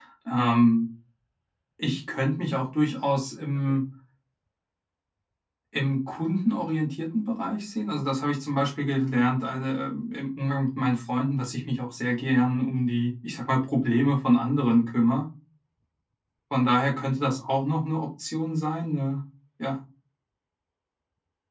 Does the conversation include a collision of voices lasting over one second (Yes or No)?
No